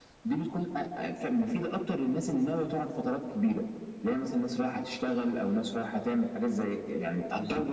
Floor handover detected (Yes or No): No